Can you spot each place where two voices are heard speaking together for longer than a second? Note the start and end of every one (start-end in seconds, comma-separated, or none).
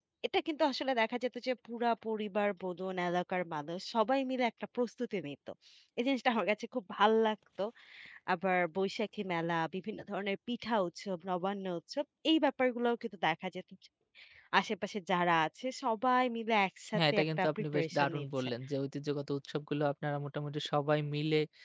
17.0-18.5